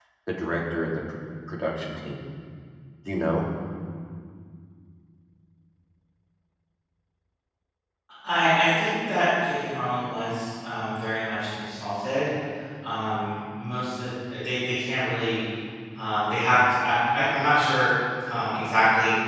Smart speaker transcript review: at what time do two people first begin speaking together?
none

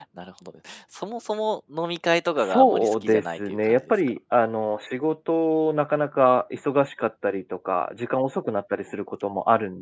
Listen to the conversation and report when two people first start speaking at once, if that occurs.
2 s

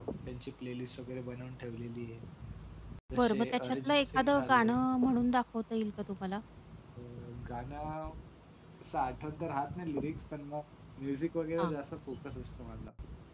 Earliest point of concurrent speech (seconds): 3 s

